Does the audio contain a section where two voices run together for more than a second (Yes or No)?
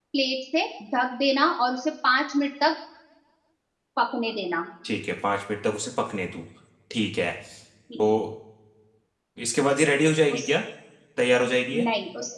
No